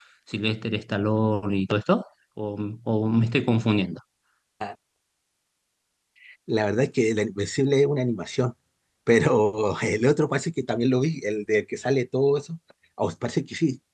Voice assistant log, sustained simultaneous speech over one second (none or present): none